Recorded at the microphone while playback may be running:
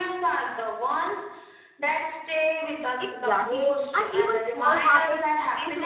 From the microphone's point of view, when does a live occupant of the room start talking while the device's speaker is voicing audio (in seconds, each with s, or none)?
3.0 s